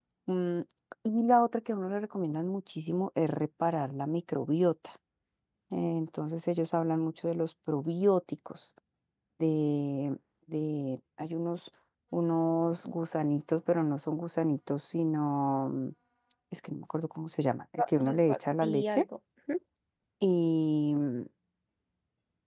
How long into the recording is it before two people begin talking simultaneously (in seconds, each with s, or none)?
17.8 s